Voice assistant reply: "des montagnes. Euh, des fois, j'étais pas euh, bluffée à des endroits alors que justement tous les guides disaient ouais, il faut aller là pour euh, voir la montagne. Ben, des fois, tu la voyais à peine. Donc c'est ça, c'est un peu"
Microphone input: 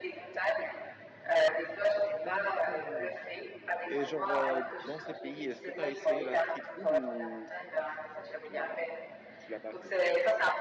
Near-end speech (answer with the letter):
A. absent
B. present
B